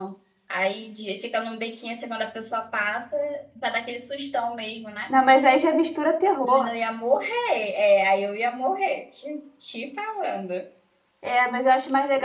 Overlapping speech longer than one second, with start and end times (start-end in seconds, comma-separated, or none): none